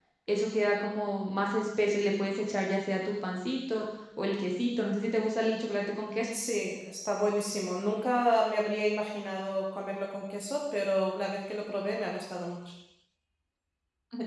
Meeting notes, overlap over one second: none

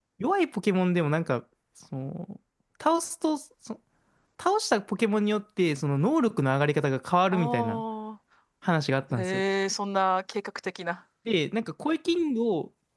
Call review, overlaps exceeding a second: none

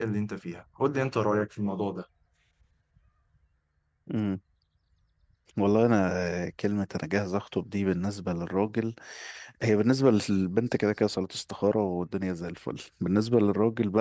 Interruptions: none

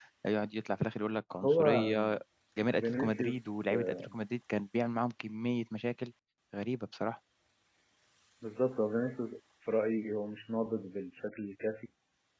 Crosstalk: present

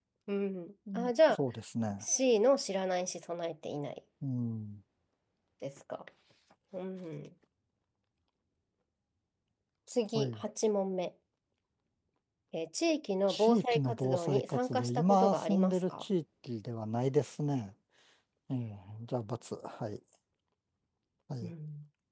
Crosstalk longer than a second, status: present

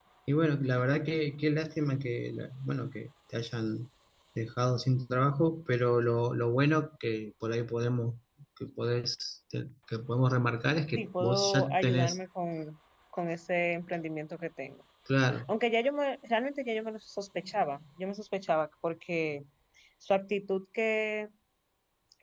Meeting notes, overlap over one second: present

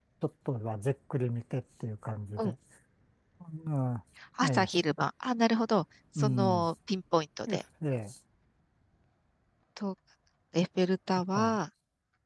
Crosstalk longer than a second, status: none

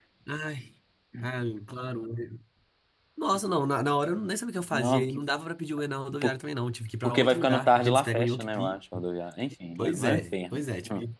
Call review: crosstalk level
present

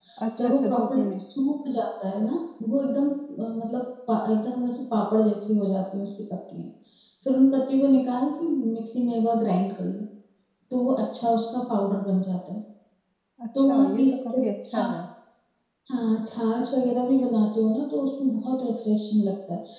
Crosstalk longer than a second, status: present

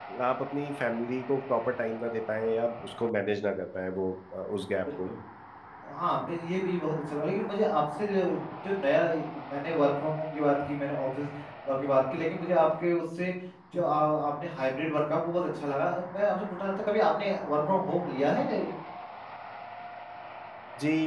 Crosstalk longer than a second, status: none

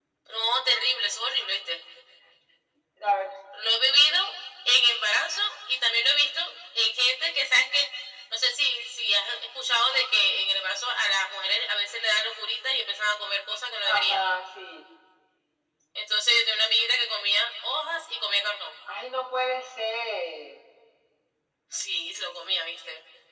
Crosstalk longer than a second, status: none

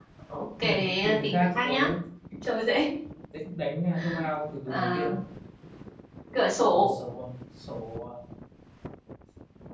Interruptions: present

